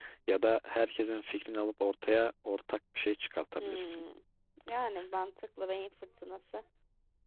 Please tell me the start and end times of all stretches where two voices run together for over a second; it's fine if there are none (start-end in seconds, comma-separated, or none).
none